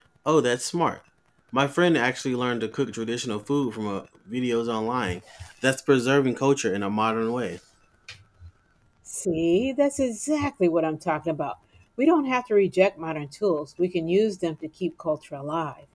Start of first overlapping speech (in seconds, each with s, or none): none